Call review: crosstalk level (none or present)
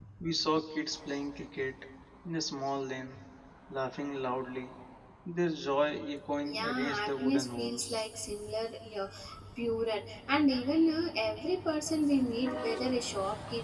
present